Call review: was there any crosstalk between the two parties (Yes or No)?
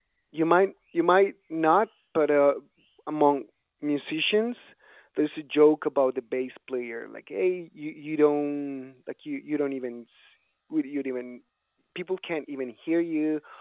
No